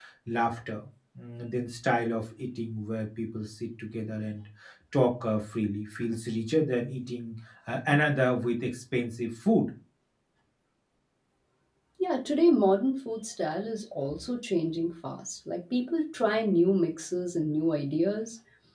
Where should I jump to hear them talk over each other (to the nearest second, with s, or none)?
none